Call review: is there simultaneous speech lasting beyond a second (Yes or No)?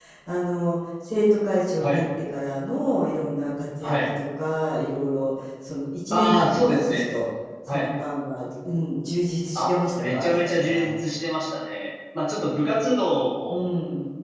Yes